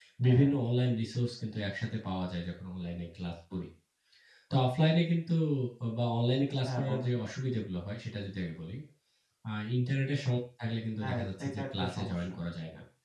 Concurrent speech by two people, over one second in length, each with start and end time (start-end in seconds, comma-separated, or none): 11.0-12.3